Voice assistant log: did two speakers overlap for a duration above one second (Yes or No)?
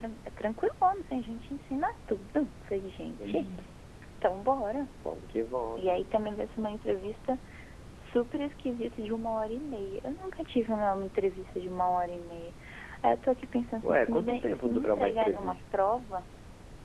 Yes